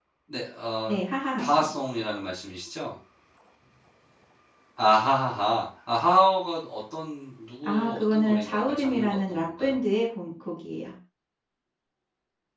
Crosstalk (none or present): present